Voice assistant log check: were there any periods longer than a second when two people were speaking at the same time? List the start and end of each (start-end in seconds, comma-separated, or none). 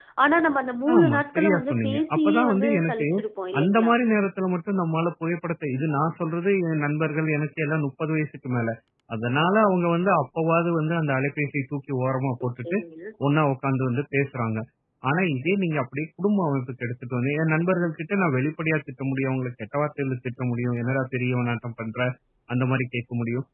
0.9-3.1